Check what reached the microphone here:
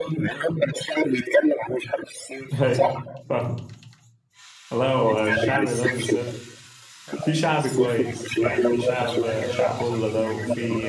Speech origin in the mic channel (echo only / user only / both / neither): both